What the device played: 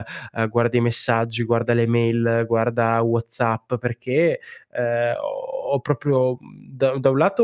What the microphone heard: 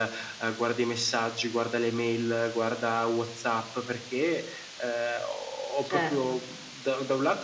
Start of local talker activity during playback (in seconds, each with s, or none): 5.8 s